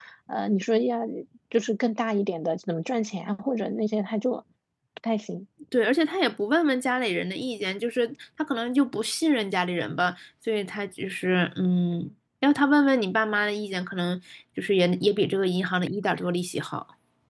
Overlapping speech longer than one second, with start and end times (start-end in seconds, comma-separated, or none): none